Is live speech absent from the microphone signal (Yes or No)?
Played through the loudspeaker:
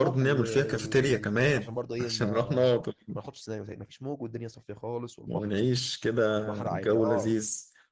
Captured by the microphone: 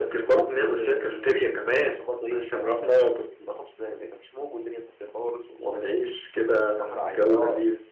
Yes